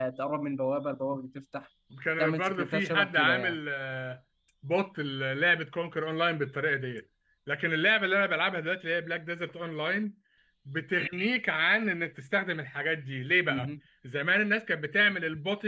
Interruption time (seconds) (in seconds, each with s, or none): 2.2 s